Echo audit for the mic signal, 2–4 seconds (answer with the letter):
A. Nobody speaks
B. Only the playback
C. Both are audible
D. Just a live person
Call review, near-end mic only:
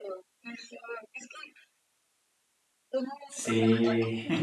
C